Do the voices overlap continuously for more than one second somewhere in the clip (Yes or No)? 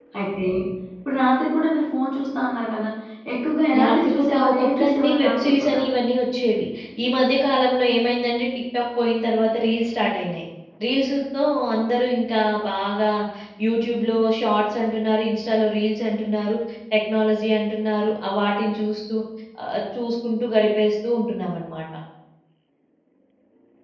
Yes